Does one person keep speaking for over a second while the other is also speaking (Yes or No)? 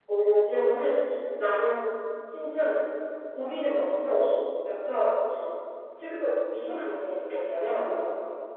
No